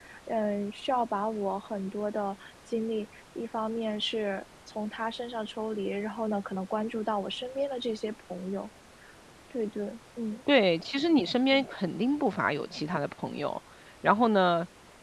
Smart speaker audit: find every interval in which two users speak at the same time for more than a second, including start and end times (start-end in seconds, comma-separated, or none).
none